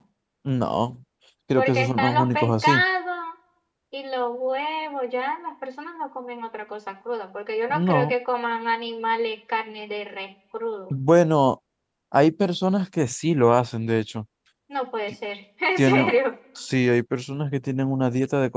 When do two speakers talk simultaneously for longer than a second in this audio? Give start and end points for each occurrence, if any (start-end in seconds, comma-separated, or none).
1.6-2.8